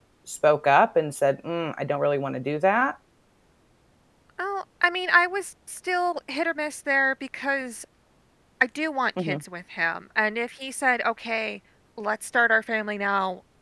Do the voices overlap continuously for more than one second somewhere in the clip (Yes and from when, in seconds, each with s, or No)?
No